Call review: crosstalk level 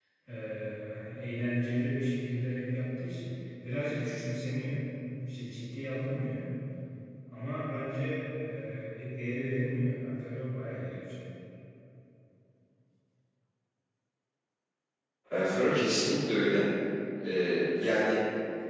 none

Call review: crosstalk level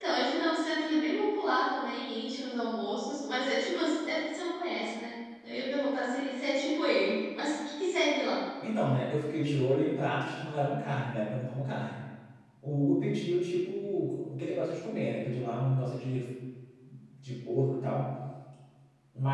none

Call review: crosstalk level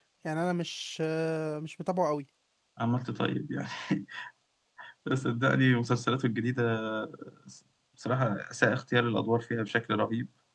none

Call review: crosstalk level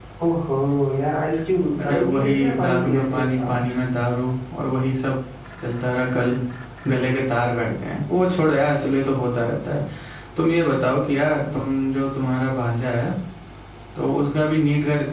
present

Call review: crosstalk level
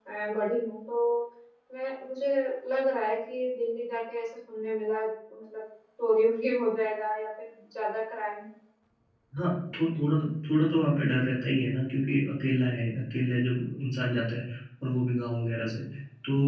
none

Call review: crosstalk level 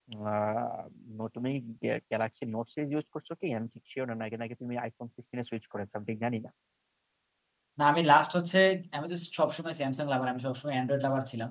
none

